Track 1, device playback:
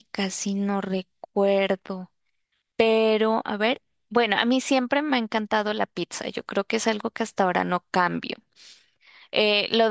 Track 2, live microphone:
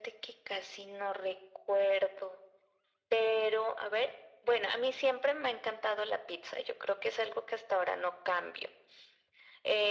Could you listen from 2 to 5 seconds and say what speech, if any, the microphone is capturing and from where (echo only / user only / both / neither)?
echo only